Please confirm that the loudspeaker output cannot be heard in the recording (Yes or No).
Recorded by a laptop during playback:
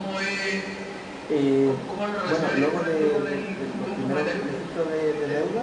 No